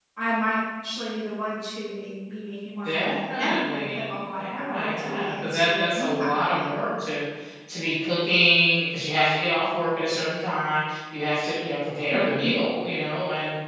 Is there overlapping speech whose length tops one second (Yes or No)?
Yes